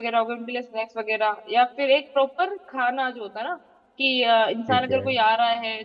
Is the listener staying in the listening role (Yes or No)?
Yes